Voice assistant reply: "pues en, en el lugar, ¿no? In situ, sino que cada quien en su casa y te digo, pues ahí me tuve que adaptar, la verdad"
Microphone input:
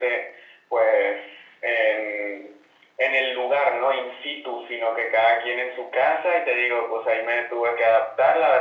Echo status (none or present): present